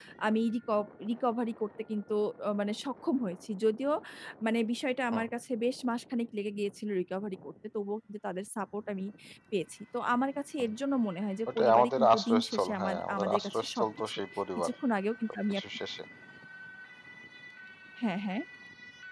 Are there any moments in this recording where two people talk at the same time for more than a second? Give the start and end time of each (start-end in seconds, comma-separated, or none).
11.6-14.2